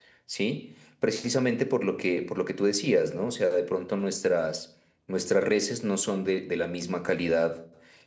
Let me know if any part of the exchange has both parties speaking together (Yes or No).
No